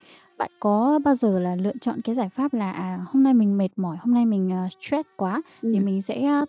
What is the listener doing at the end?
listening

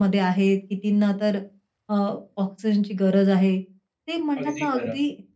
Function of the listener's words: listening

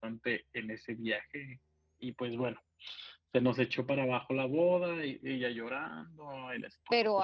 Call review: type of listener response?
taking over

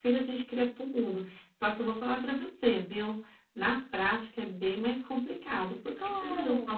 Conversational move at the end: listening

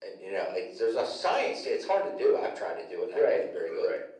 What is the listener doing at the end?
taking over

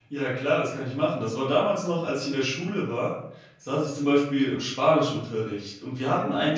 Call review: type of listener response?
listening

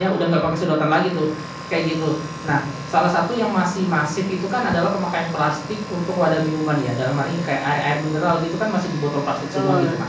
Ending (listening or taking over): listening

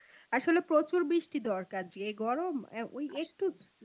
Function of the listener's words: listening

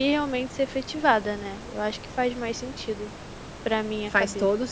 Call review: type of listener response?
taking over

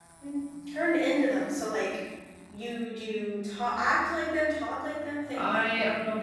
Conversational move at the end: taking over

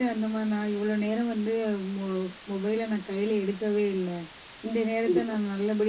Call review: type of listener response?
listening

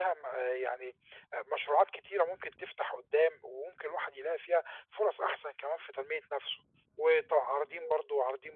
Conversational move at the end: listening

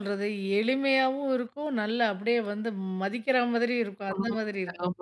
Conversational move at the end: taking over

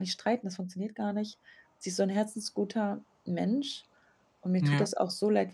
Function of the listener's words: listening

